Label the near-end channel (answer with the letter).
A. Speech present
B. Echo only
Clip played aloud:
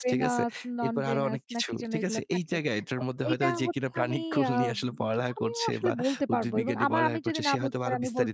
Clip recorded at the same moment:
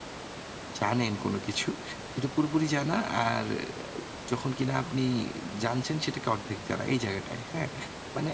A